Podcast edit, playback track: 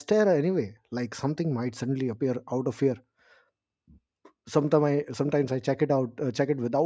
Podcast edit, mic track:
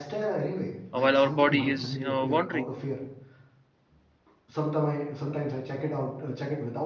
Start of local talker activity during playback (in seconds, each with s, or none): 0.9 s